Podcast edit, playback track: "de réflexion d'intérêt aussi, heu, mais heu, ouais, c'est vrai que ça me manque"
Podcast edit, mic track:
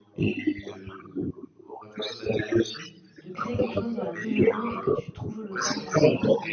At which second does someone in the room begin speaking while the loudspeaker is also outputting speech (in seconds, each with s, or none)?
3.2 s